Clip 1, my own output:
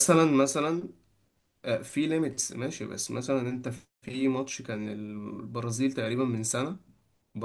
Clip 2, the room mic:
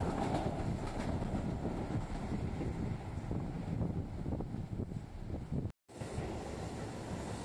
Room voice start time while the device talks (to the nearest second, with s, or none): none